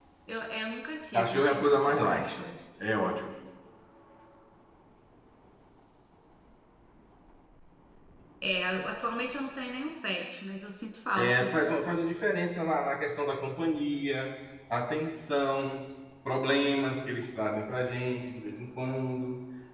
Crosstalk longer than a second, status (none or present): present